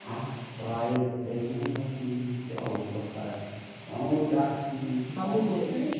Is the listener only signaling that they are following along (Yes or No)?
Yes